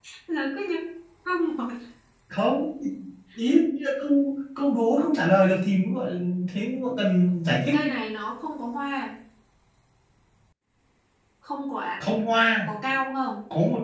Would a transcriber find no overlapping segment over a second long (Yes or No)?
Yes